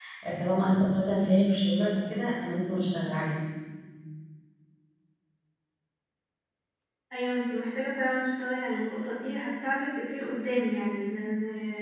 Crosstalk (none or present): none